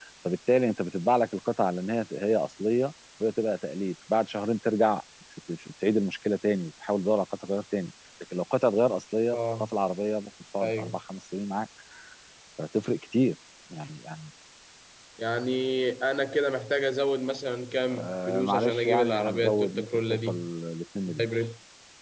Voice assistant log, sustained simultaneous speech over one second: present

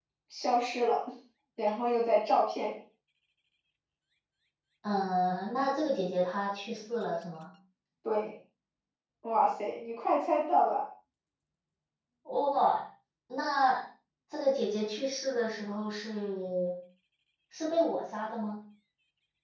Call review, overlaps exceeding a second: none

